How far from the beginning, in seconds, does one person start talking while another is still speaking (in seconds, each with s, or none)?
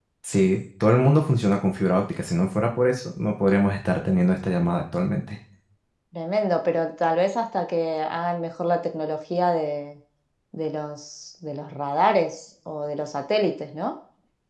none